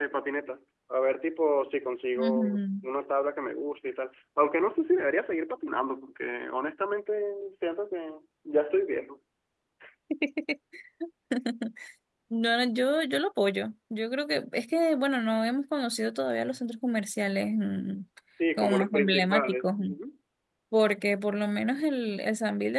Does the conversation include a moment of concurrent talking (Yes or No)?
Yes